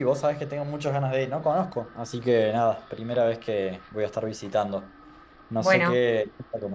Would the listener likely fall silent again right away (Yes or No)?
Yes